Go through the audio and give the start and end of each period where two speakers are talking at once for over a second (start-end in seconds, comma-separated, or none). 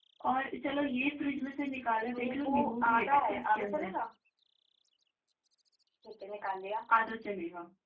2.1-3.9